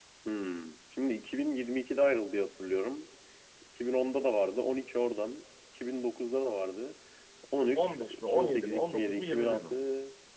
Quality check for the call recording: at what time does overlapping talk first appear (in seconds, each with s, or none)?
7.8 s